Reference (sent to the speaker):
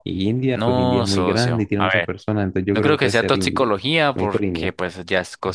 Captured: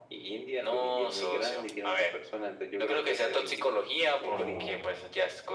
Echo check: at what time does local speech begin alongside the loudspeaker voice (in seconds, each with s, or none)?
4.3 s